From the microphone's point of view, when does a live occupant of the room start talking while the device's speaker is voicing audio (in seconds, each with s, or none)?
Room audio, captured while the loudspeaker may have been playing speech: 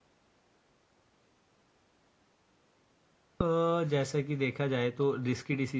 3.4 s